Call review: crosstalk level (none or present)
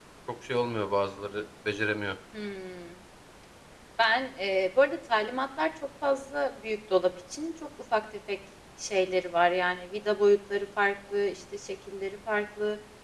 none